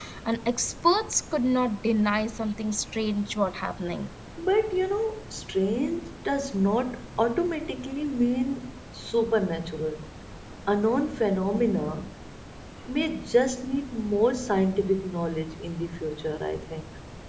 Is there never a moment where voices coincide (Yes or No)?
Yes